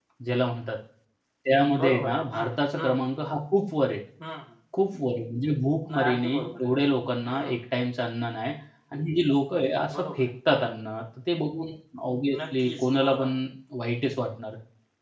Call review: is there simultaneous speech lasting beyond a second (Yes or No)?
Yes